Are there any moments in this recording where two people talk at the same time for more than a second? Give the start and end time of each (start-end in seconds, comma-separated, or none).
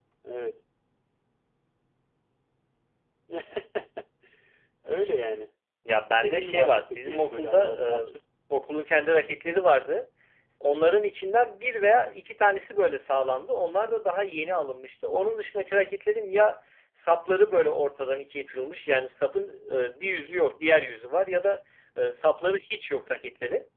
6.2-8.1